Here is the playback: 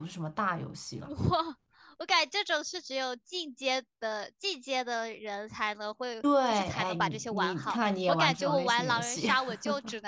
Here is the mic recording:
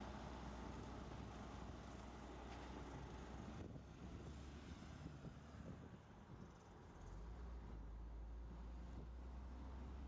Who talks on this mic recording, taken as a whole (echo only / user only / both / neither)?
neither